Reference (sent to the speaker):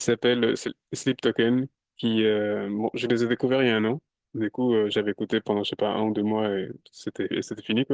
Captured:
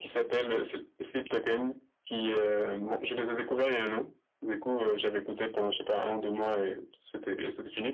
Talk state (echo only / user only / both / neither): echo only